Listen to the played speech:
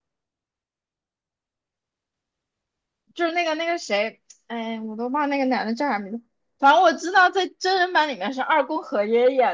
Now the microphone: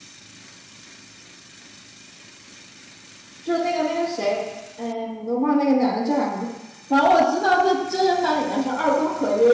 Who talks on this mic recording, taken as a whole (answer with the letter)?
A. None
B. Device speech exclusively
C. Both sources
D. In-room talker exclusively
B